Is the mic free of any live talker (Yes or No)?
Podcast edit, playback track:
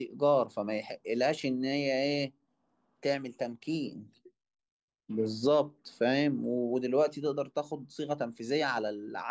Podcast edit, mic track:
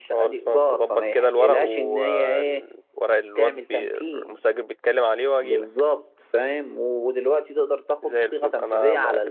No